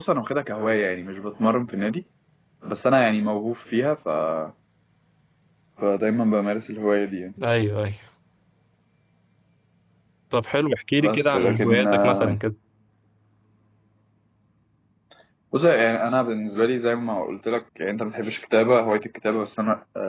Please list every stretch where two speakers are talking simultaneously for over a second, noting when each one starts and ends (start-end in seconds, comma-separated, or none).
11.0-12.3